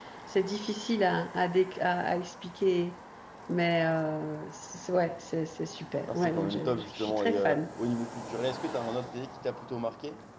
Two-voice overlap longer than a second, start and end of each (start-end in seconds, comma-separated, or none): 6.1-7.6